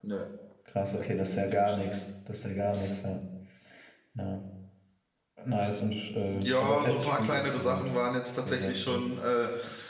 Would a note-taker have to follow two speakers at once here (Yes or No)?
Yes